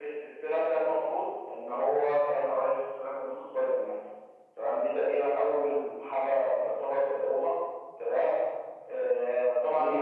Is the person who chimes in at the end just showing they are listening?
Yes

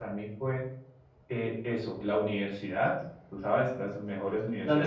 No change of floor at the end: Yes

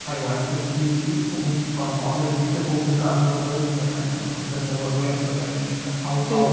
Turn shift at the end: Yes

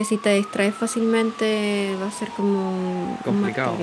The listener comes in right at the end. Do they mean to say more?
Yes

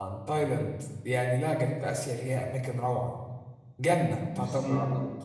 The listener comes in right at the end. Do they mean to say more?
Yes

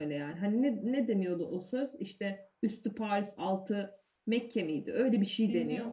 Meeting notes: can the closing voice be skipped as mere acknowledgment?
No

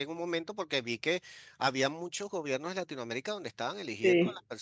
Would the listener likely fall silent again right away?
Yes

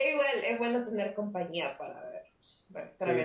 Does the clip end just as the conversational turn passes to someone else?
No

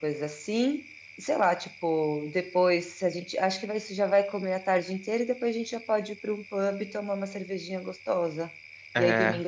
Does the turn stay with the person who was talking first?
Yes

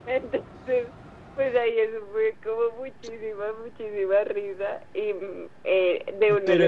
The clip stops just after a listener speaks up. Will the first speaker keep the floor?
No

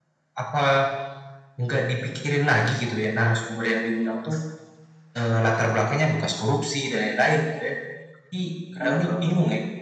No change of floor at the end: Yes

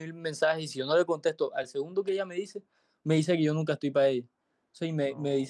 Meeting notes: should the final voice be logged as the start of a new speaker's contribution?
No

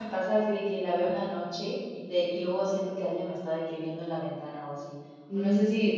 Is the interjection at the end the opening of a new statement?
No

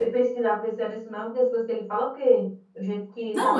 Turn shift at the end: Yes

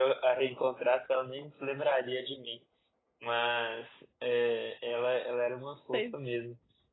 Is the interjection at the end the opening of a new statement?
No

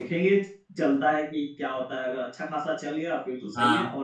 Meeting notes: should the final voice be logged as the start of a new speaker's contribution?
No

